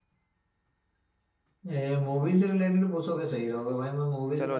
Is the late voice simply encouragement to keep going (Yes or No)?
No